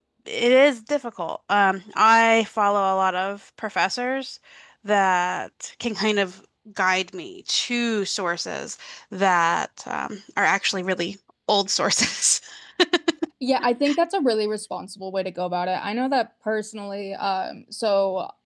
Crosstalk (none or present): none